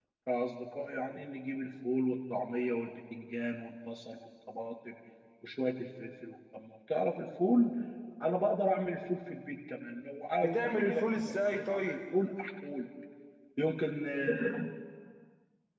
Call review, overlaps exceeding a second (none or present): present